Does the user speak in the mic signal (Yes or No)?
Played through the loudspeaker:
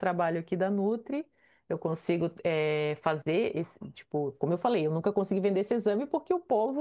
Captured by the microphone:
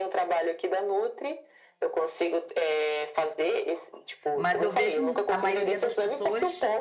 Yes